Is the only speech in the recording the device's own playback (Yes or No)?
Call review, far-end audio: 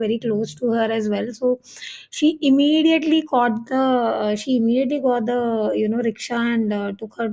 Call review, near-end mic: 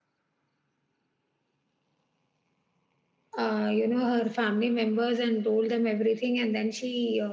No